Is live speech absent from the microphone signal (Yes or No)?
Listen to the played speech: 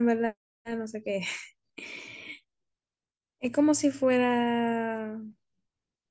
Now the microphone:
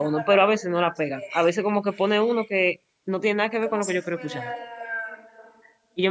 No